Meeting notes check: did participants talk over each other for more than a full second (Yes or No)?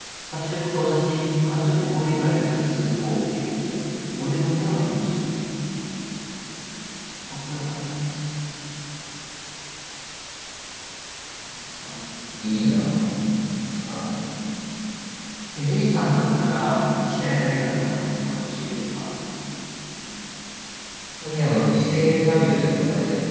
No